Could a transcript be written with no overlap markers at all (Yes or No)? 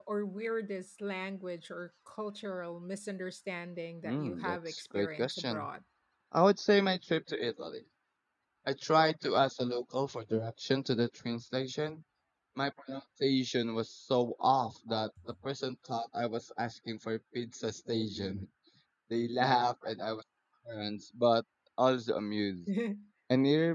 No